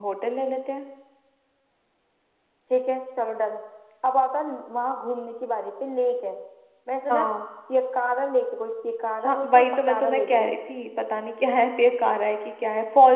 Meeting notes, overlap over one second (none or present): present